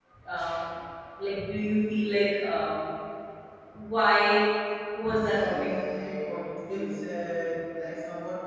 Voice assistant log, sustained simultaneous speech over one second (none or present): present